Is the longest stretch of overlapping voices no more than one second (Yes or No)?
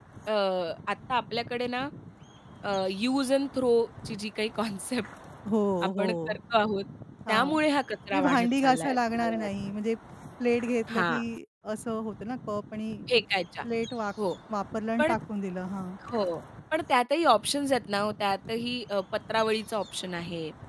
No